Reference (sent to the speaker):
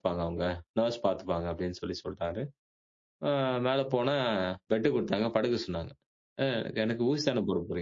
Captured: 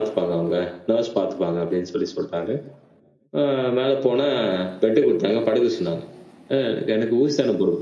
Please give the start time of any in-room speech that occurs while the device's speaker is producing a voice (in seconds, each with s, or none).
none